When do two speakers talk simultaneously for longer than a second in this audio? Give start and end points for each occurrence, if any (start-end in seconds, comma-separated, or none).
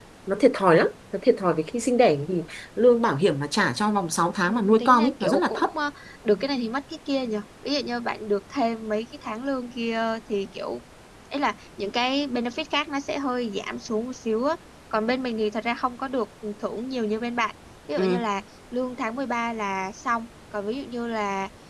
4.5-5.7